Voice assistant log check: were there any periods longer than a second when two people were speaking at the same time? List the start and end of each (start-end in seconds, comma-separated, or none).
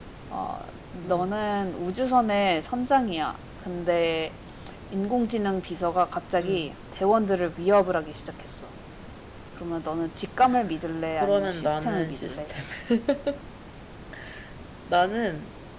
11.1-12.4